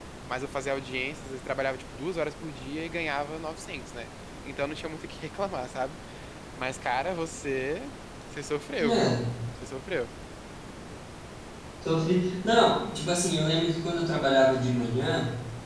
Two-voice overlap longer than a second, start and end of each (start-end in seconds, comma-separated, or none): none